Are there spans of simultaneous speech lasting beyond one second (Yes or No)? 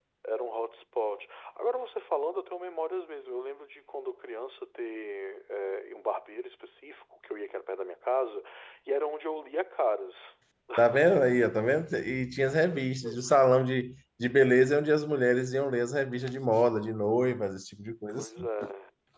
No